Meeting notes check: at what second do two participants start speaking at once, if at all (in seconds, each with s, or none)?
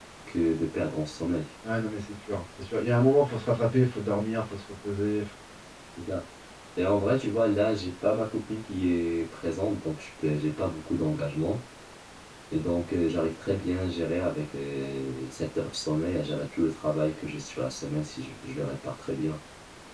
none